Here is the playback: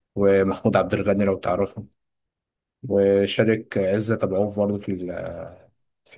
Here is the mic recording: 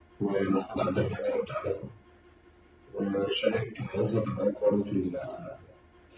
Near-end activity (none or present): none